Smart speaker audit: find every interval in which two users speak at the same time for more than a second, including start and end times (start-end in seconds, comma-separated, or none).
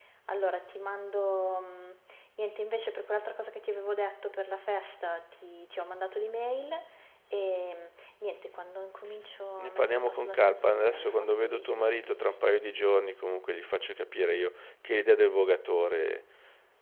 9.6-12.2